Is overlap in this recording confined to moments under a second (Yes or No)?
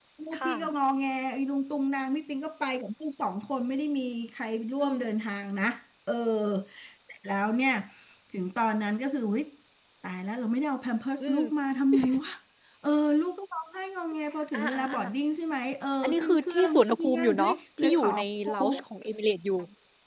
No